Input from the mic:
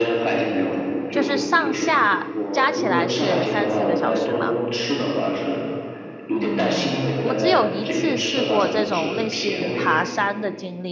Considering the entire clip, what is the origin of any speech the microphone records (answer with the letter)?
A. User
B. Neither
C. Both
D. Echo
C